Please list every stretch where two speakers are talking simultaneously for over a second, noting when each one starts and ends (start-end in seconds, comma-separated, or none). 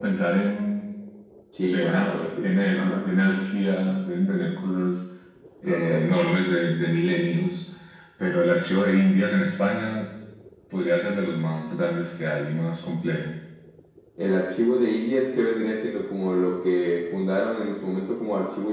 1.6-3.3